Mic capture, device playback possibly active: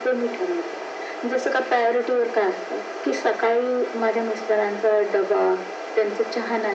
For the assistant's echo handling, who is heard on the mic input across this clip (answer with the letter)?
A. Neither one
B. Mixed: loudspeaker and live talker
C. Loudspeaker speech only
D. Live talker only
C